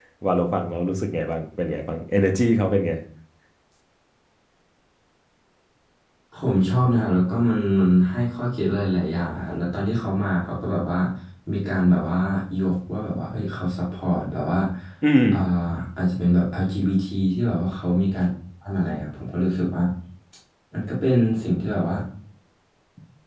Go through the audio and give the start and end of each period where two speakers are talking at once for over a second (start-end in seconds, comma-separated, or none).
none